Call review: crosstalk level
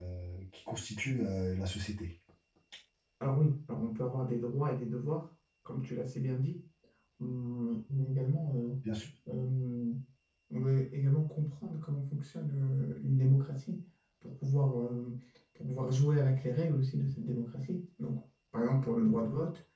none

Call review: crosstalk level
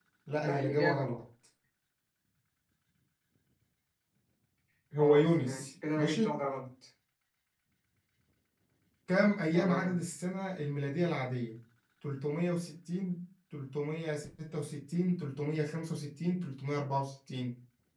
present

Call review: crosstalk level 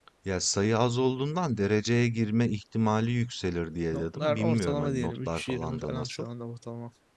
present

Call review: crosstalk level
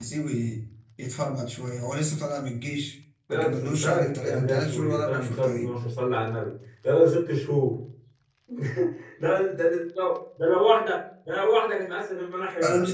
present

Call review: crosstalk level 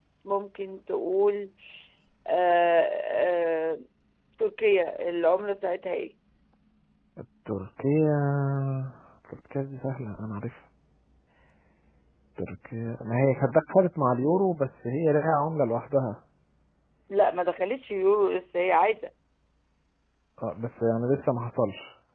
none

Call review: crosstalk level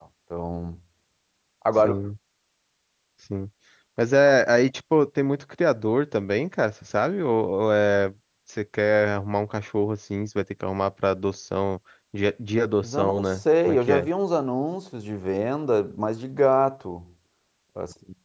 present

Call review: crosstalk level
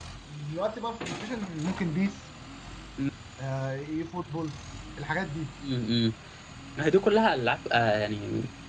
none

